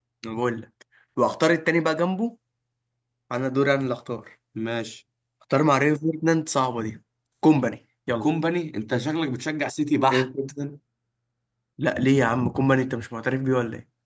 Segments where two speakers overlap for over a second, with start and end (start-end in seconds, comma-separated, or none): none